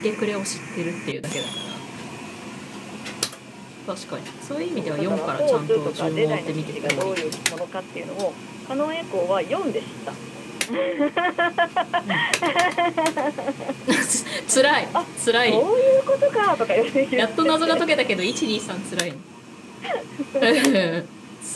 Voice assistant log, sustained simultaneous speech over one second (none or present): present